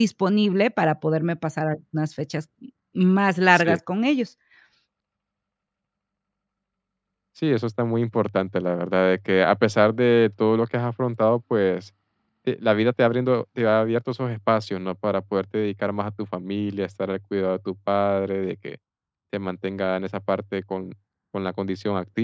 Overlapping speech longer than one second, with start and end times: none

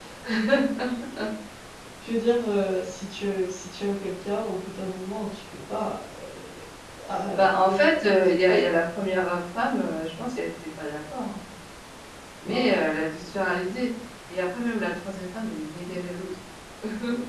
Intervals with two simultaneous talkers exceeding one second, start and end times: 7.4-8.6

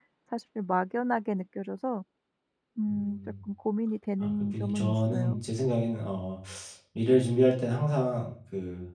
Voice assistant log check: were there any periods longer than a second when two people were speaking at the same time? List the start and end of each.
4.2-5.4

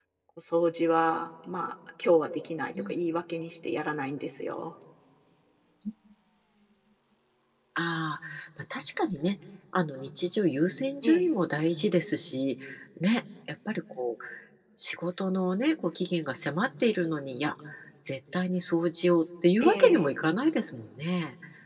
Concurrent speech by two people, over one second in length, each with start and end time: none

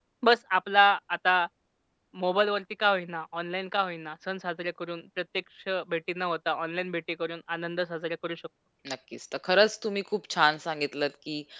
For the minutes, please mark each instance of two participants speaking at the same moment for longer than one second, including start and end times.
none

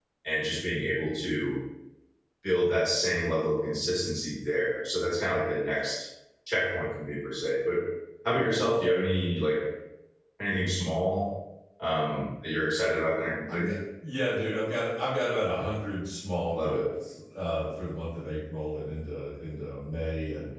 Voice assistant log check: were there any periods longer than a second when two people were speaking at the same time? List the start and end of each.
none

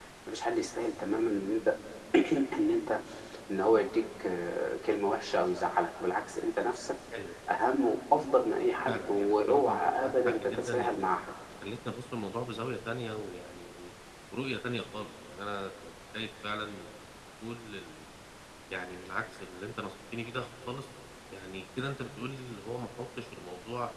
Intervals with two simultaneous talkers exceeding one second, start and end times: 8.9-11.1

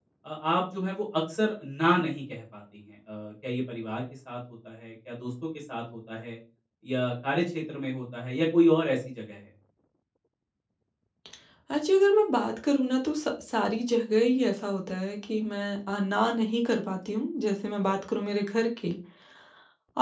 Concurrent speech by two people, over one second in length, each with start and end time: none

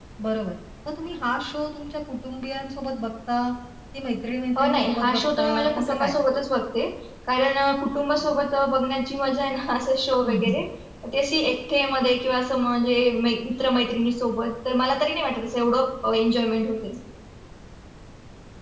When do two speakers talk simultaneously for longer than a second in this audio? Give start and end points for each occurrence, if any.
4.6-6.2

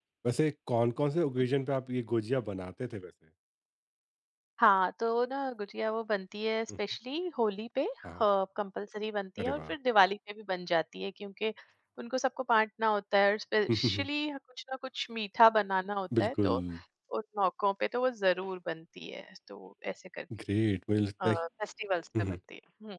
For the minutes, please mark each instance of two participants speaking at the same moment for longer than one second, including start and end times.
none

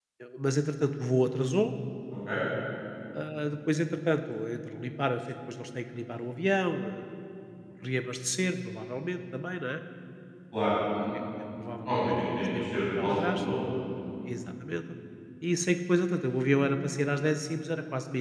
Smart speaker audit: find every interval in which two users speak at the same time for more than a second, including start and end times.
11.8-13.4

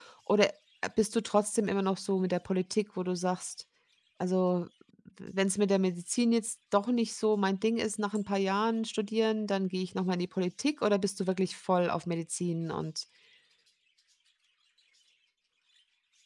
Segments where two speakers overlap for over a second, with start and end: none

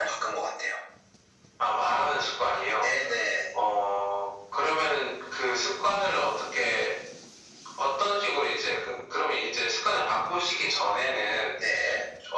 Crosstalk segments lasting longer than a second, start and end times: none

